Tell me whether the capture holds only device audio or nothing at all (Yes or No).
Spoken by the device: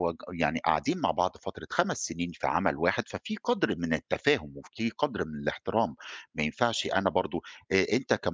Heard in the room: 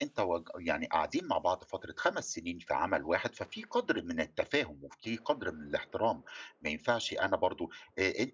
Yes